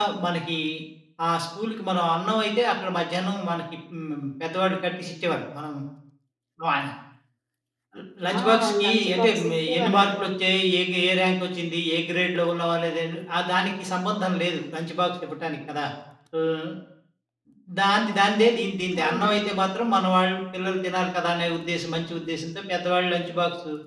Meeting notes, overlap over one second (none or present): present